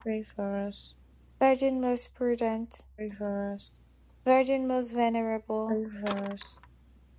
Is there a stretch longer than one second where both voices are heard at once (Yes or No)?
No